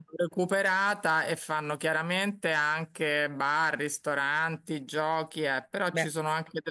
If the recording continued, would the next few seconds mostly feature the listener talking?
No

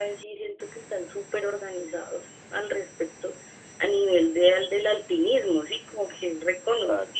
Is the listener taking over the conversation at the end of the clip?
No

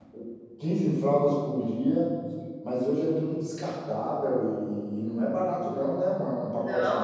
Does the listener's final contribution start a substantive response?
Yes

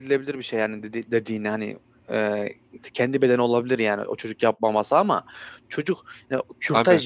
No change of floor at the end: Yes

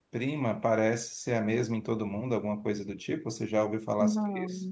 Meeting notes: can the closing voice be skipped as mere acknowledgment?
No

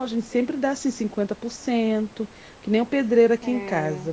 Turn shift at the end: No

